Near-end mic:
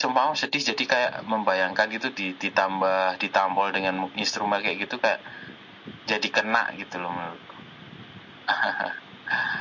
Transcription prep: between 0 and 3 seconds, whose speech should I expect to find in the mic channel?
echo only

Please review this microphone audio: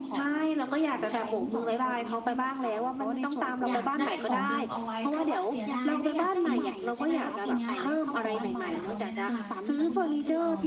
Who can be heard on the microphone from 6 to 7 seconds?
both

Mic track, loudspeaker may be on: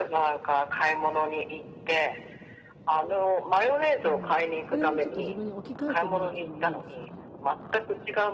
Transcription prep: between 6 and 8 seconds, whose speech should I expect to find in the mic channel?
both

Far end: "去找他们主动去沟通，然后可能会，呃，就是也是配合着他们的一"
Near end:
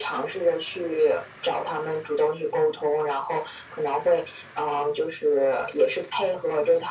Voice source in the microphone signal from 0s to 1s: echo only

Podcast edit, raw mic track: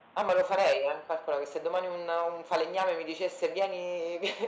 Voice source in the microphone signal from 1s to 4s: echo only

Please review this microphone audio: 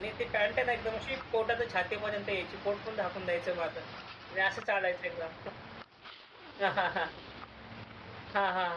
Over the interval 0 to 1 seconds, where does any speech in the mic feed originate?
user only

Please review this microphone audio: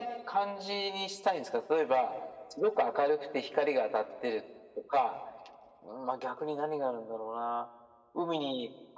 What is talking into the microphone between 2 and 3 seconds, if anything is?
echo only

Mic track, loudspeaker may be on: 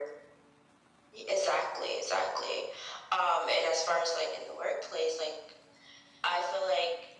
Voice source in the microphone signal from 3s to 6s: echo only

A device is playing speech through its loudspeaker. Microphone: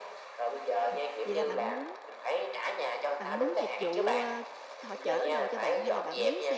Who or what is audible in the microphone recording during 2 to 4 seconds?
both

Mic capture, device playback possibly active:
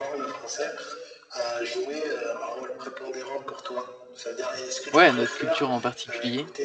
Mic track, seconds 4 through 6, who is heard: both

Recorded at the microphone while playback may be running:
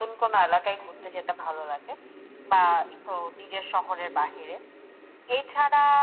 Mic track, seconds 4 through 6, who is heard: echo only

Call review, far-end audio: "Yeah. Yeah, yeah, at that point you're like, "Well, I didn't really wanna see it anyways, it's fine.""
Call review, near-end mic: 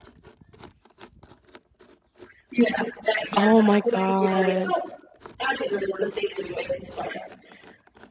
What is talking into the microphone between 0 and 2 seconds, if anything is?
neither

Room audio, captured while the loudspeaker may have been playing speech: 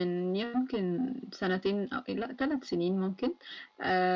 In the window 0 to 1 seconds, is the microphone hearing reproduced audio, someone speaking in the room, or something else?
echo only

